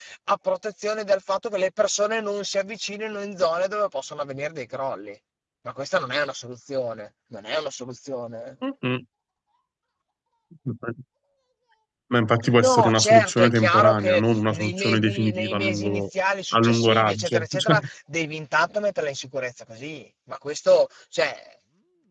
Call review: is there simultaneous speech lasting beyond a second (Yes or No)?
Yes